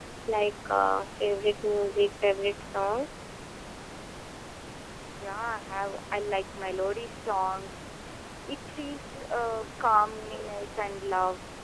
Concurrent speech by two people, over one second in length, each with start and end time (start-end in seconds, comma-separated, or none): none